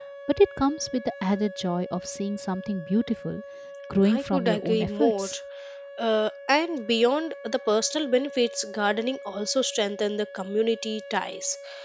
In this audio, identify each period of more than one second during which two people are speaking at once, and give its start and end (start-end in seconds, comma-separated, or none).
4.0-5.3